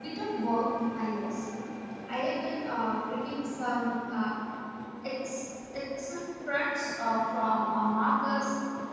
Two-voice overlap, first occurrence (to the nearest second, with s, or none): none